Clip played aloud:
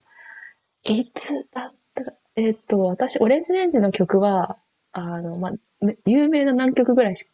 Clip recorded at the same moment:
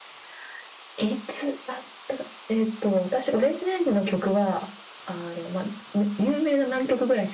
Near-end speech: none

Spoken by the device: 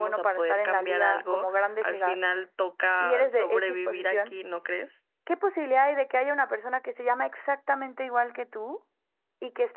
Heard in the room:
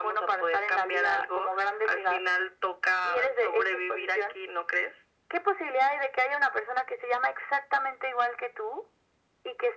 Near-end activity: none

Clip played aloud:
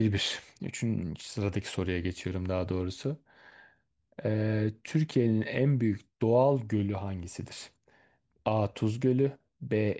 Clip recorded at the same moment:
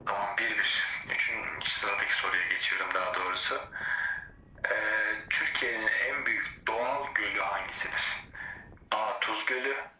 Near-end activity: none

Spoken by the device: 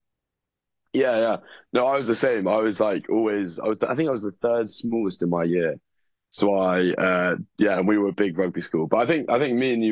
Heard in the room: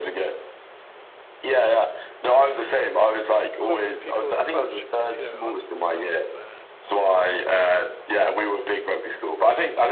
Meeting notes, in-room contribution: present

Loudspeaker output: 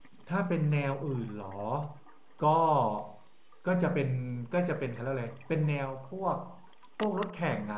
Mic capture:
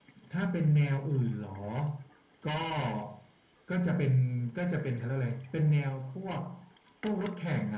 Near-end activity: none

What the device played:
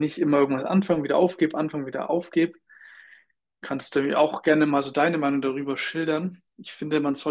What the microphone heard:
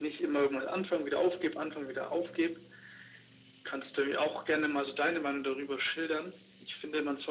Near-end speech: none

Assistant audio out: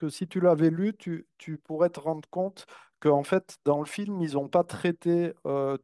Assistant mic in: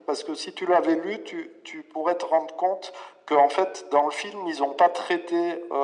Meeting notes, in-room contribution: none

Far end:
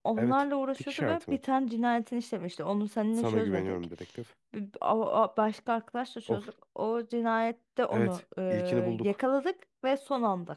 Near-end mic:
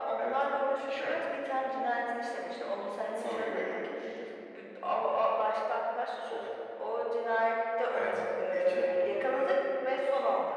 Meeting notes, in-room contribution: none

